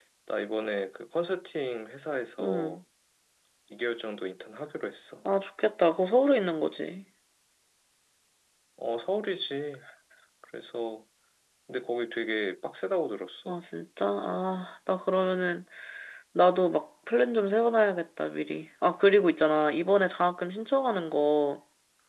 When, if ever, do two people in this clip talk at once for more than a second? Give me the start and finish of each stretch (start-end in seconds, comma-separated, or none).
none